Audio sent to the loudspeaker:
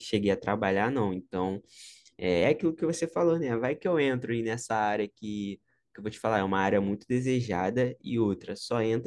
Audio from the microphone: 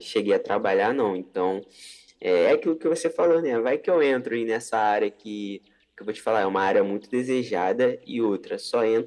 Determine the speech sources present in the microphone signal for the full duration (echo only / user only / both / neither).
echo only